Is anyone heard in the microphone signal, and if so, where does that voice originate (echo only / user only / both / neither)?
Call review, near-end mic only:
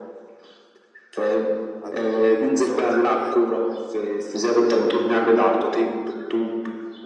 both